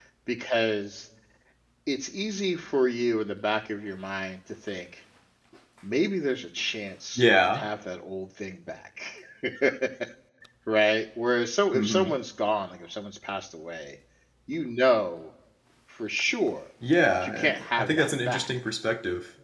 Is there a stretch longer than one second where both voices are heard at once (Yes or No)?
Yes